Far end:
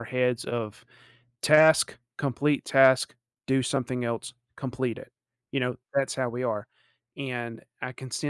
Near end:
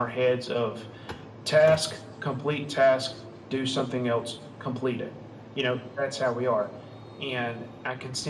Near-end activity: none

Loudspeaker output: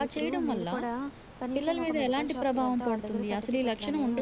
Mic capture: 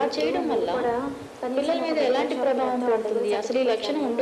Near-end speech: none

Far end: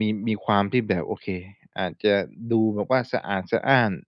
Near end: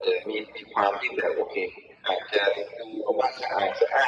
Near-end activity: none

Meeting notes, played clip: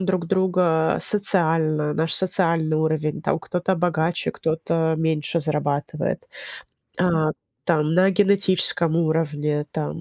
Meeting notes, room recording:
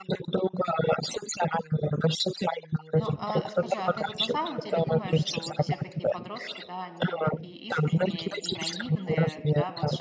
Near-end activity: present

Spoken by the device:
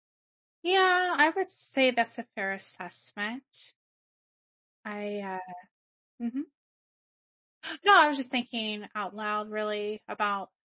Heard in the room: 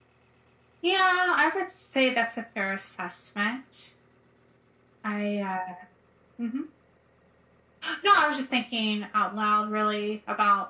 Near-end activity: none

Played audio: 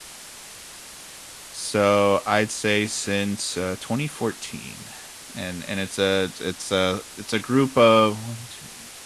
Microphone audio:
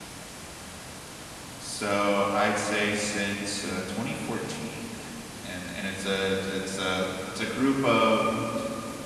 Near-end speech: none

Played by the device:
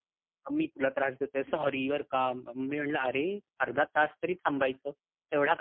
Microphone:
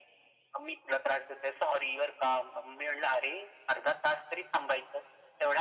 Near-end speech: none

